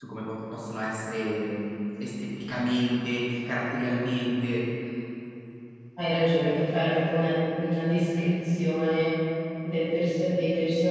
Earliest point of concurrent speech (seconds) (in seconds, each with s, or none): none